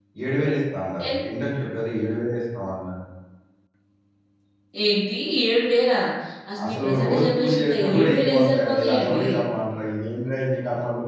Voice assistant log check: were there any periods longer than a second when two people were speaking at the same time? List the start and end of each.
6.6-9.2

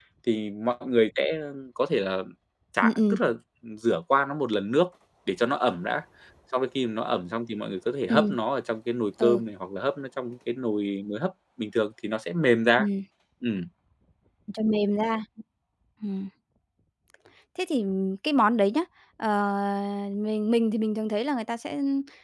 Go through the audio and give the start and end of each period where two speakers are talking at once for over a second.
none

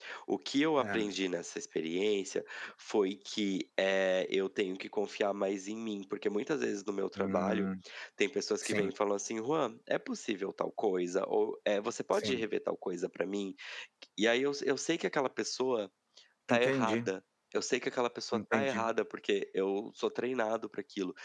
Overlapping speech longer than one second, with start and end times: none

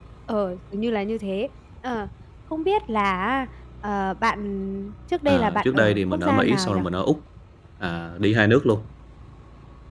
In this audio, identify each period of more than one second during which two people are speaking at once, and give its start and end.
5.3-6.8

